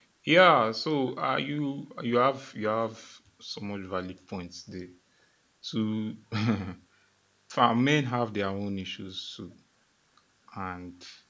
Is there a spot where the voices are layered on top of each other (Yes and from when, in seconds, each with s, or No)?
No